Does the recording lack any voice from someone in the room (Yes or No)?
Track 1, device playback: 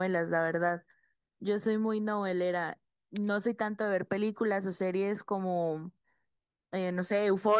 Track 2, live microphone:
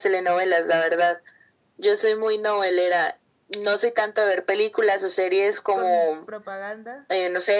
No